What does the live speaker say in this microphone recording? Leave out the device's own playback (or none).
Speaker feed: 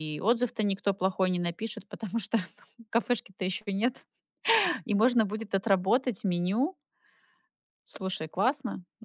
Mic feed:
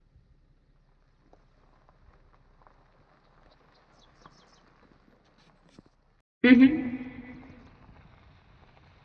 Мгм.